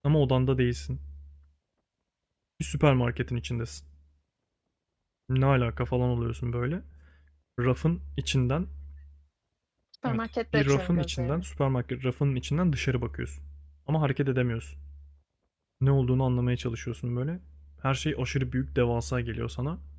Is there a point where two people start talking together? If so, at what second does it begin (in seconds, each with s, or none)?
10.1 s